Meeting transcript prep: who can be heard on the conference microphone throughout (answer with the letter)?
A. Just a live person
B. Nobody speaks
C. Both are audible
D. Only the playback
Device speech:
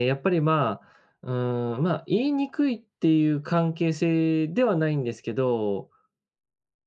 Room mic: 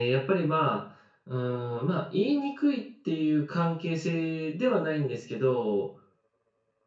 D